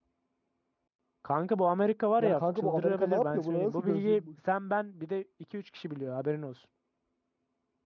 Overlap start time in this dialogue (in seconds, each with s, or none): 2.2 s